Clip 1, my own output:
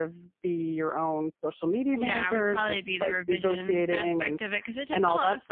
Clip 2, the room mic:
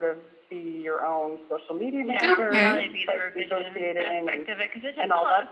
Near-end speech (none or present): present